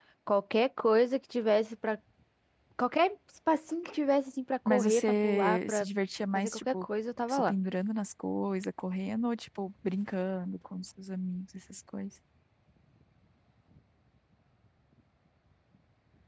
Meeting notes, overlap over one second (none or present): present